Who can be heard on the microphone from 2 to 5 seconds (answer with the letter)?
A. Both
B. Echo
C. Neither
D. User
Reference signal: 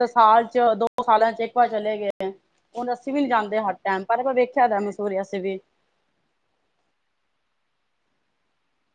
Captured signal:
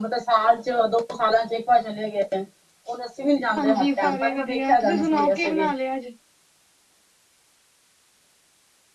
A